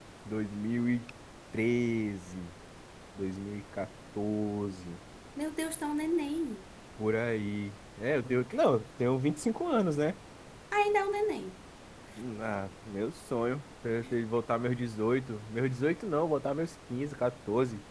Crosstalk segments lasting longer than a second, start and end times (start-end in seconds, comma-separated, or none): none